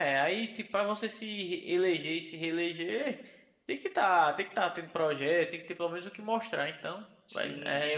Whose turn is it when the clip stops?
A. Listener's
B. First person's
A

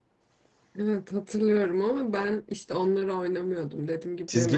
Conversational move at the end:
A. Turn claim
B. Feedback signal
A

